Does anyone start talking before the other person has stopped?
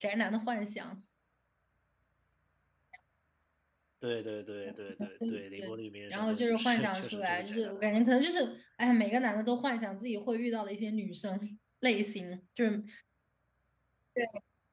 Yes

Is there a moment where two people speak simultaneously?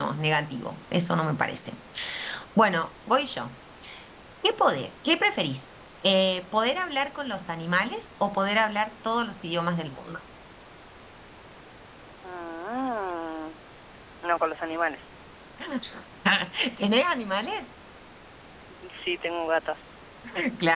No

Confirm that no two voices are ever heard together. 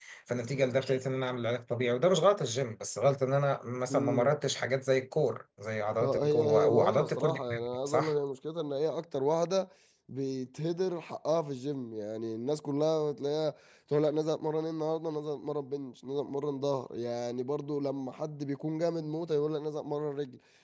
No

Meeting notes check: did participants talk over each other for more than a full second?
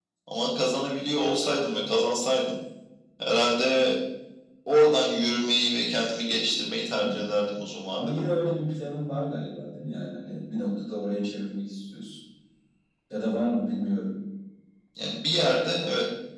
No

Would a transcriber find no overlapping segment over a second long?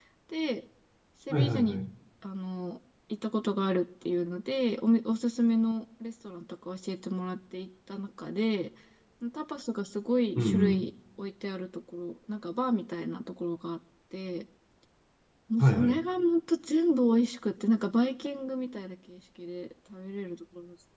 Yes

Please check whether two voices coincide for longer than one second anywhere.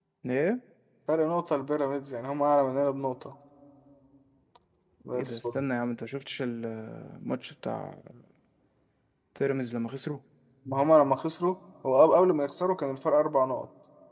No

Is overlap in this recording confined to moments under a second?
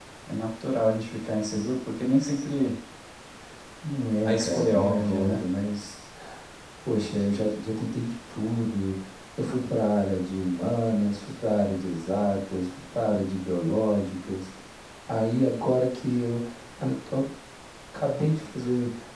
No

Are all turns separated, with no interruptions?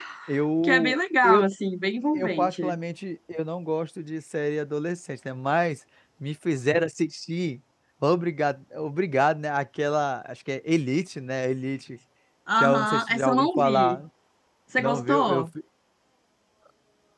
No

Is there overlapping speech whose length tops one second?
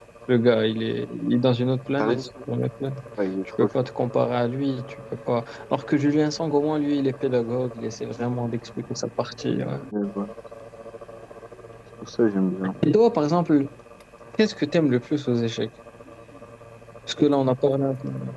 No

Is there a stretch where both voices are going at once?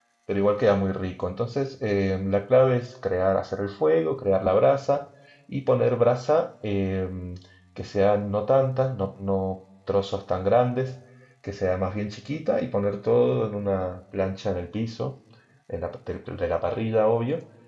No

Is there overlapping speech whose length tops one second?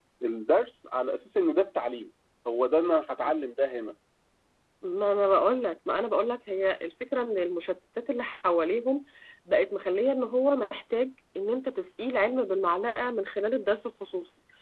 No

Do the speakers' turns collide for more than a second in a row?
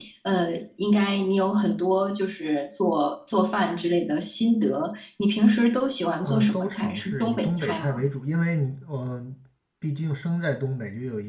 Yes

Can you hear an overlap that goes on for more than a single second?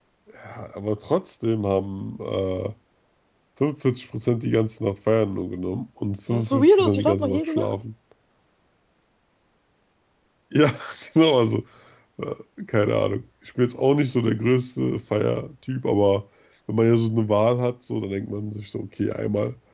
Yes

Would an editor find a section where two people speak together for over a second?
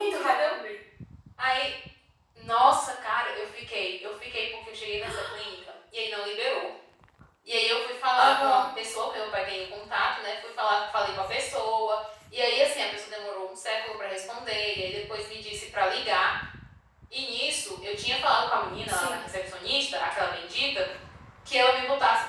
No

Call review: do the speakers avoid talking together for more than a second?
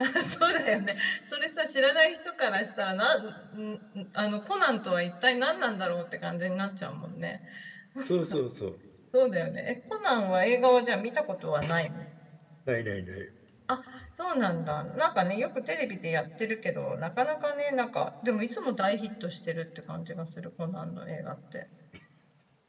Yes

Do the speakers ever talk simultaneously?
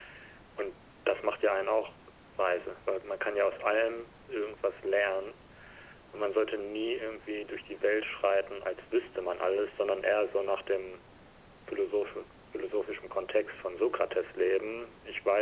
No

